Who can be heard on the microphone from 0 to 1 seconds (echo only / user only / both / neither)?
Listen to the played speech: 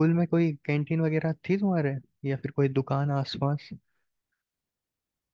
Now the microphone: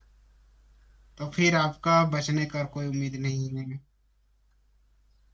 neither